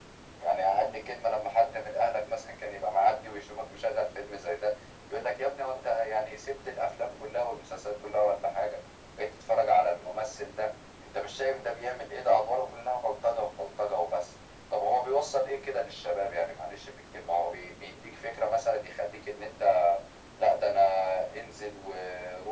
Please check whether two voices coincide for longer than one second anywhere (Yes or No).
No